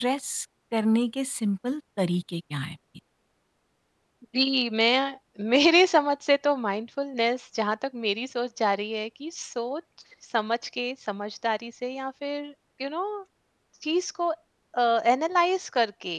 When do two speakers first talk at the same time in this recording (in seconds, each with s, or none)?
none